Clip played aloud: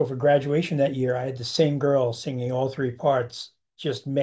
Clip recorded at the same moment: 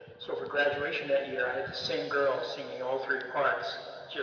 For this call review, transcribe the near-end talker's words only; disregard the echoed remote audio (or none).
none